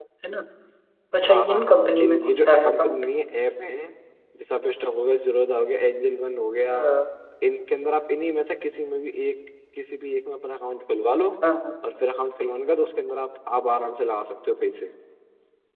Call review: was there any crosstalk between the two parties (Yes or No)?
Yes